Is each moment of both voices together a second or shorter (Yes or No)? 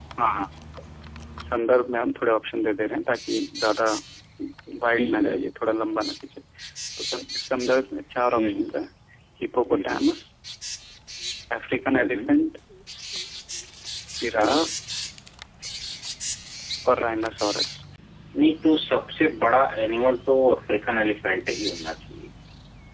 Yes